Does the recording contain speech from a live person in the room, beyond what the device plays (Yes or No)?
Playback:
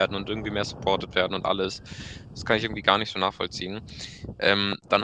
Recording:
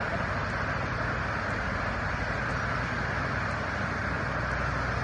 No